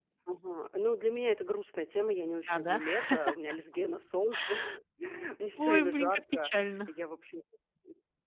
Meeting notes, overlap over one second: present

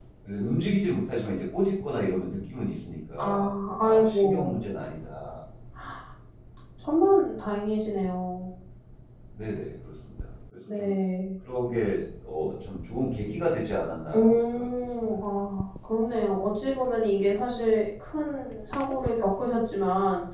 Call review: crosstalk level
present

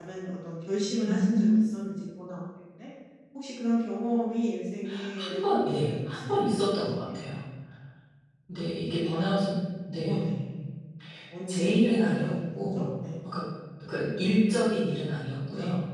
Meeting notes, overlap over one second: present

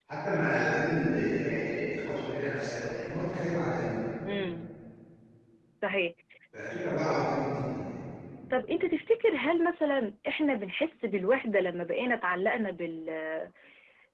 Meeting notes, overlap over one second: none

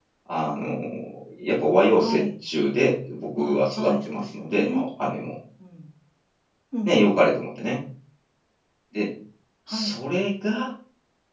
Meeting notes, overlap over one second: present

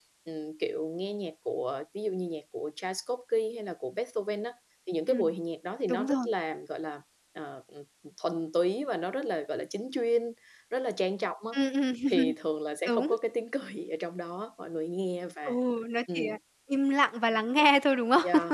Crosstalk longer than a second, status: none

